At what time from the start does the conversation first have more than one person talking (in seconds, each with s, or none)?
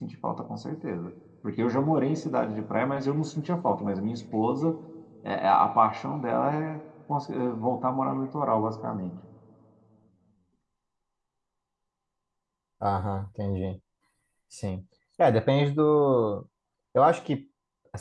none